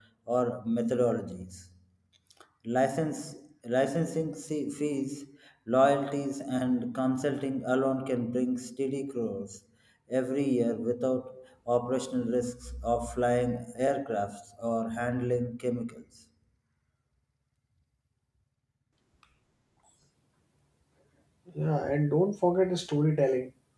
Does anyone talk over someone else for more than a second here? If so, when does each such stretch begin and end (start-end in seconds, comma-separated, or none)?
none